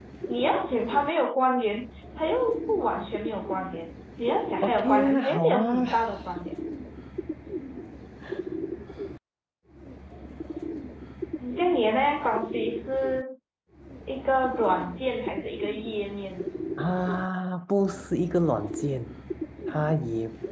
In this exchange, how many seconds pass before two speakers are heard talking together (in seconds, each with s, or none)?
4.6 s